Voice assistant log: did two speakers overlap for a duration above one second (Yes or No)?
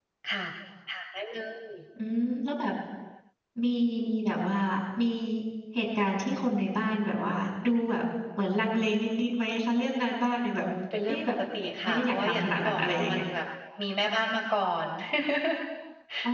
Yes